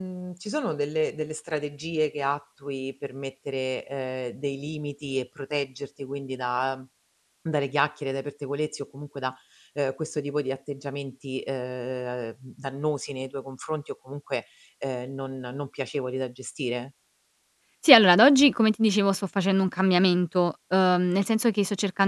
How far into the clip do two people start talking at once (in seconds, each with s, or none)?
none